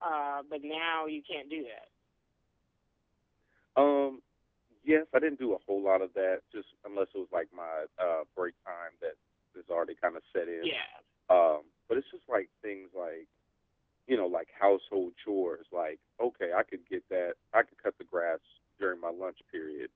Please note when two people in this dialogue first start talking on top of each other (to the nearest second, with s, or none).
none